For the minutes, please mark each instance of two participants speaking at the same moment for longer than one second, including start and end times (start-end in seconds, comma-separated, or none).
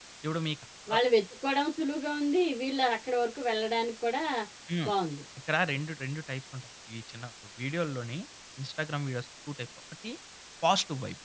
none